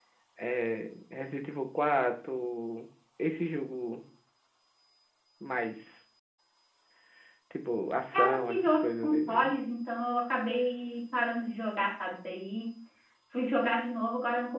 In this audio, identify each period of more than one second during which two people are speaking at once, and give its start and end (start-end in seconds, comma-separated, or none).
8.1-9.5